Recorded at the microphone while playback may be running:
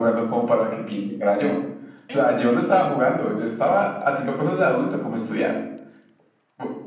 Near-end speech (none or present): present